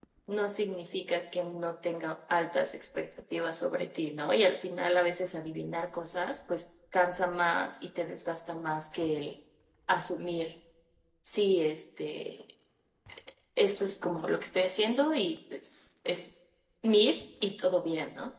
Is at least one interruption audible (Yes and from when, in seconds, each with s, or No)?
No